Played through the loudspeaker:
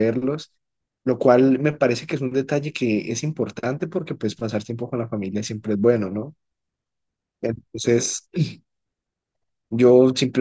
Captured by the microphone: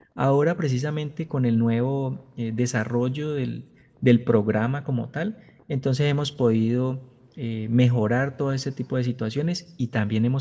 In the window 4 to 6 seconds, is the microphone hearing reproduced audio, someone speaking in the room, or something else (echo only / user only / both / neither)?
user only